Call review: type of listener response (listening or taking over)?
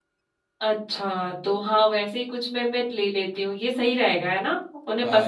taking over